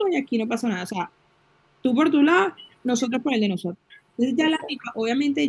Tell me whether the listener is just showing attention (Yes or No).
Yes